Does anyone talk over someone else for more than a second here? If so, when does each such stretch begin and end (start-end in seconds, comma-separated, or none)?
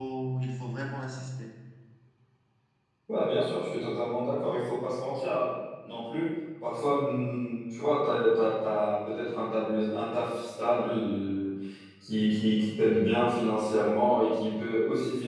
none